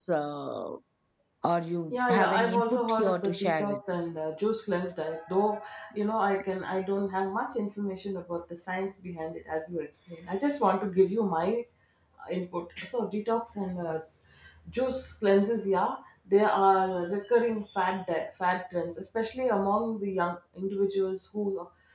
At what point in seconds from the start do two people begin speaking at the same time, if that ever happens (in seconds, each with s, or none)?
1.9 s